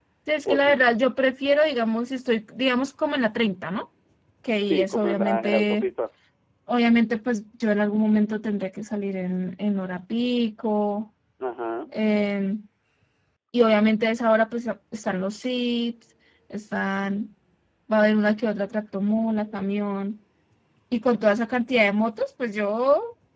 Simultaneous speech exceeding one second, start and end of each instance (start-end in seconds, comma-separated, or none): 4.6-5.9